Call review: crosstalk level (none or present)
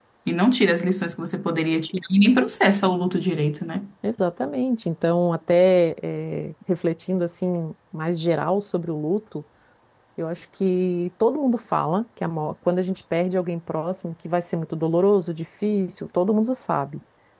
none